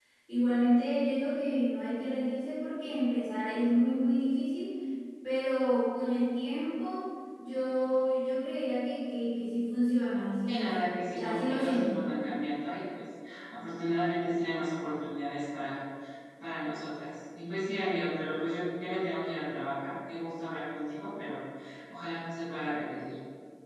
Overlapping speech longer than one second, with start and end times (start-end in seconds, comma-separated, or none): 10.5-12.0